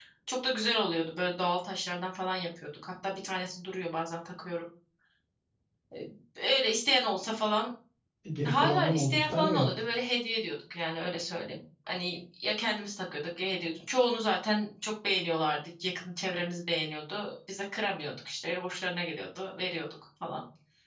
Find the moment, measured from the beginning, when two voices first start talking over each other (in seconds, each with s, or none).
8.4 s